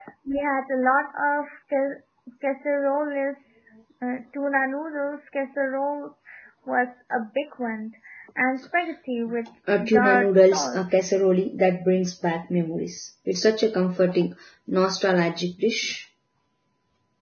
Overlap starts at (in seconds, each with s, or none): 9.7 s